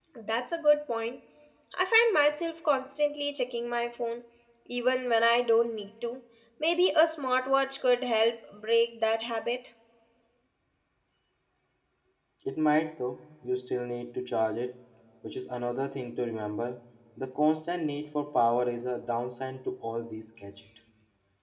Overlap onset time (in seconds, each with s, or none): none